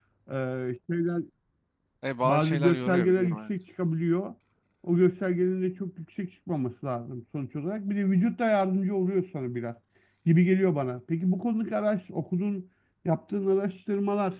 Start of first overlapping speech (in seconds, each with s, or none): 2.2 s